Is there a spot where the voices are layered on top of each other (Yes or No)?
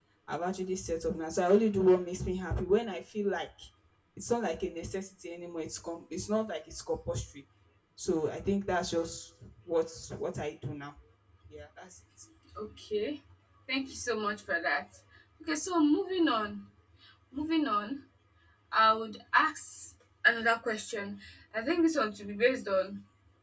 No